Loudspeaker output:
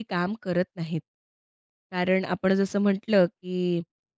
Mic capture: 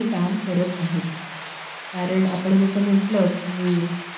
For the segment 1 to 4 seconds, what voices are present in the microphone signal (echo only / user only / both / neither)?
echo only